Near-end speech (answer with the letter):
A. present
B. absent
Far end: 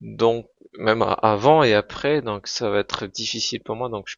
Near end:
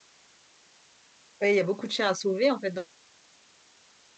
A